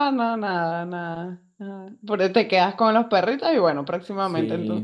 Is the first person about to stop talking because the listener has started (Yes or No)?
Yes